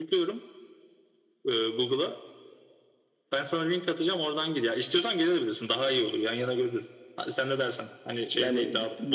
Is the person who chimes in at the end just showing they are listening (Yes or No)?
No